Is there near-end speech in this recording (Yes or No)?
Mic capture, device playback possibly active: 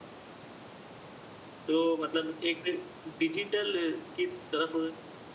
Yes